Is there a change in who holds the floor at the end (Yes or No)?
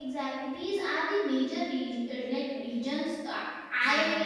No